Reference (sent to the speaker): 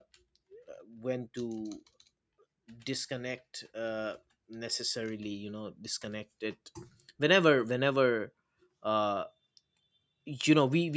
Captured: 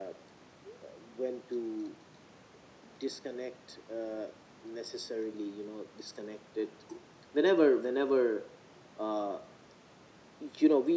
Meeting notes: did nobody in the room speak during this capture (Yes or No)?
Yes